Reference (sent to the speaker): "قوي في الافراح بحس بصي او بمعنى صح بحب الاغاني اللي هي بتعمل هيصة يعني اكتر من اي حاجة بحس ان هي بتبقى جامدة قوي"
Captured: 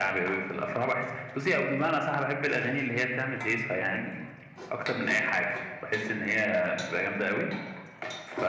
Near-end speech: none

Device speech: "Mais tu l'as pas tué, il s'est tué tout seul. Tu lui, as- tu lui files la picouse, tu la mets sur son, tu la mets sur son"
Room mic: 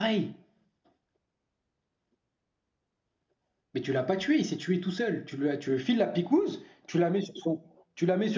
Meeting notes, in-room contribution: none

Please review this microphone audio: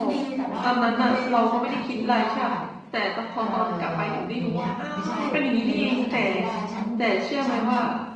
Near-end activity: present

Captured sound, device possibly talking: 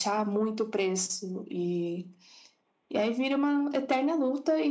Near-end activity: none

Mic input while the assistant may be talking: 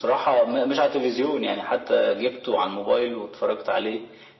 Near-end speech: none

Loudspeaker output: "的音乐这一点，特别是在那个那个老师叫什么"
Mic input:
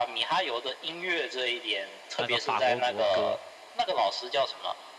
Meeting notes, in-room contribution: present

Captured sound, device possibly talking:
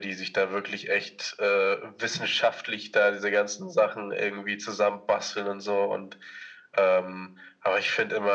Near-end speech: none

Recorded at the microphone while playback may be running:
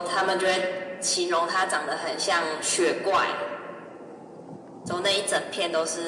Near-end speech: none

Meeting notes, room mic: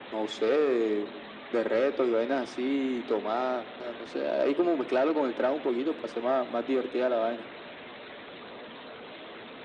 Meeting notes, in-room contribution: none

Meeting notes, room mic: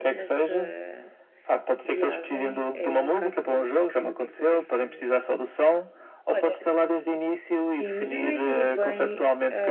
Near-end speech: present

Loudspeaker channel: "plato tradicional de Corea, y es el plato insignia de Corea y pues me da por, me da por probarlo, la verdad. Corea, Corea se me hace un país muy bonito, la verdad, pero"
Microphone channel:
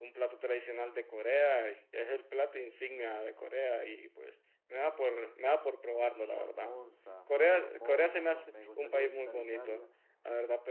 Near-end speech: present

